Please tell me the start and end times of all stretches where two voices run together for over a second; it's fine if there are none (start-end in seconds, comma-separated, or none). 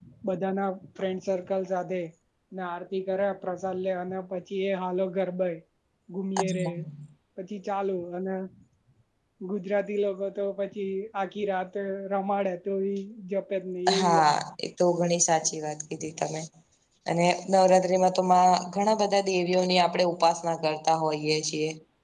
none